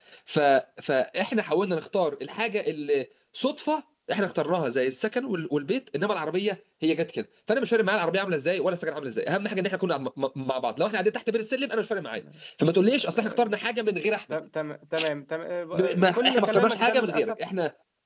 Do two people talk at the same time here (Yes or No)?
Yes